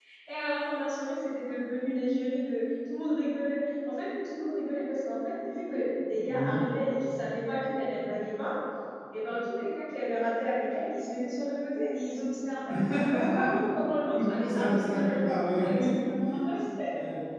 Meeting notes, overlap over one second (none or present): present